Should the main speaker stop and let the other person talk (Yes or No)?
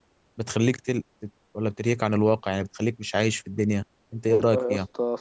Yes